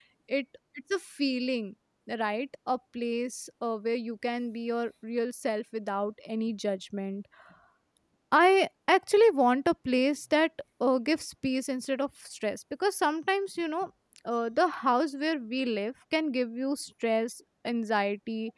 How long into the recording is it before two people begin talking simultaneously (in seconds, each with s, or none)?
none